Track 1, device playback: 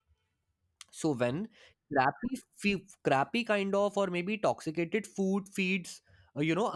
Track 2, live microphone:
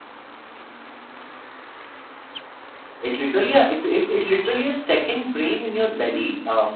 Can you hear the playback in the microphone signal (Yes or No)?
No